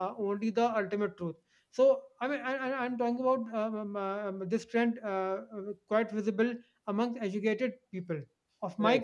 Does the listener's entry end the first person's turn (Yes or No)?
No